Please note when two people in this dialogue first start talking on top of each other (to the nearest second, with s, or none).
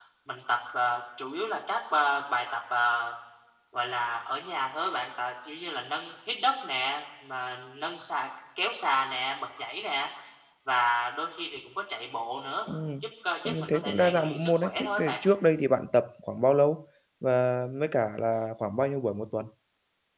13 s